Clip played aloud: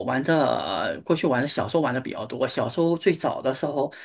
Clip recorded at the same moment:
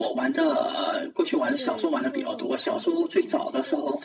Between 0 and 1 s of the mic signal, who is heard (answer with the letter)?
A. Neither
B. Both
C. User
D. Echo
D